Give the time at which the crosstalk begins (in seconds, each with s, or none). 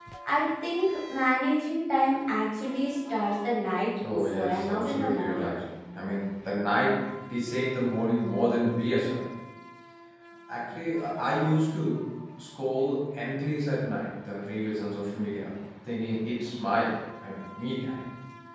4.0 s